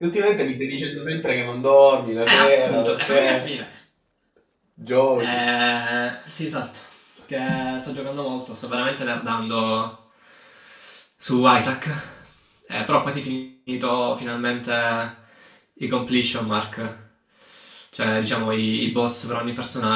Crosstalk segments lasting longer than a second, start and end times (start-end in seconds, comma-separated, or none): 2.2-3.5